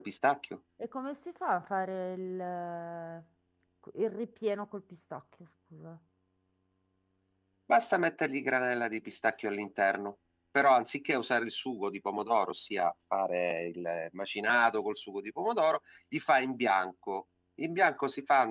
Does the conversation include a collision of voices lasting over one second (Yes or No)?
No